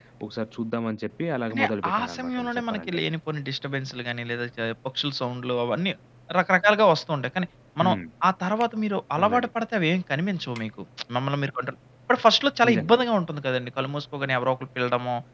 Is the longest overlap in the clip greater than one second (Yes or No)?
Yes